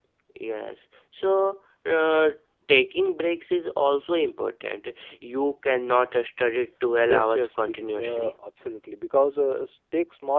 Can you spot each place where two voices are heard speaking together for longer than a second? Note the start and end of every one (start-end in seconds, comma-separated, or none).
7.1-8.3